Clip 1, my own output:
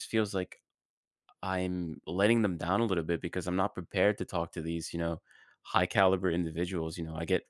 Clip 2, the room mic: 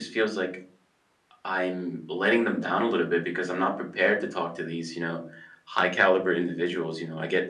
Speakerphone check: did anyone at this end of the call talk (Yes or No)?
No